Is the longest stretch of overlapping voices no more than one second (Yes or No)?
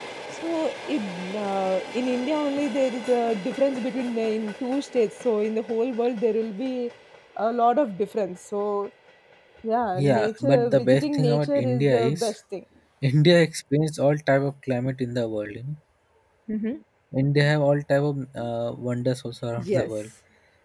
No